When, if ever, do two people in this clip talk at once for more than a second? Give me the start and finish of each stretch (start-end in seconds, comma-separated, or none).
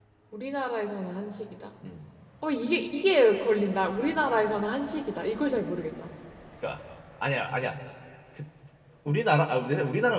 none